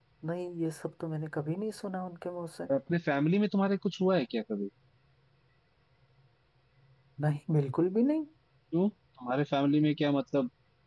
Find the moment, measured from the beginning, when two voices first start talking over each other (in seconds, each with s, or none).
none